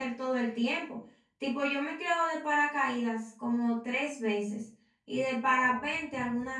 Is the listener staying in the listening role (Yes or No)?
Yes